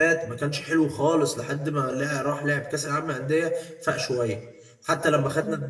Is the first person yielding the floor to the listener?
No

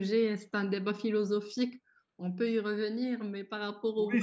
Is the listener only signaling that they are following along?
No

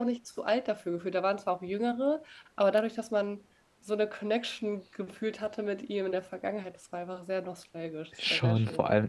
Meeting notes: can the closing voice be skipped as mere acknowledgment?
No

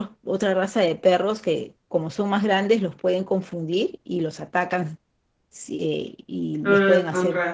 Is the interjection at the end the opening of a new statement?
Yes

